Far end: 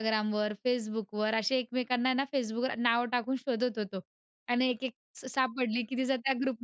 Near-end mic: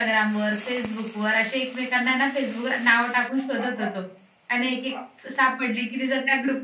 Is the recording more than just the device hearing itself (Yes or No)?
No